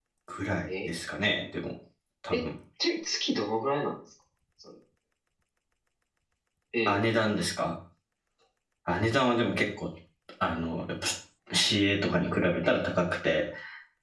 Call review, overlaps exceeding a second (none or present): none